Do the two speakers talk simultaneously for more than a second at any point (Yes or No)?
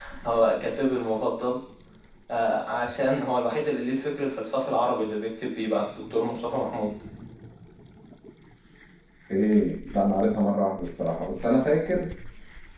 No